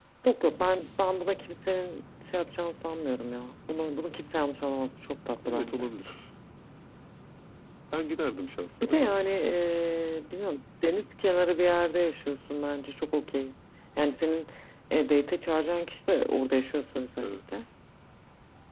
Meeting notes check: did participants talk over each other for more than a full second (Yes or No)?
No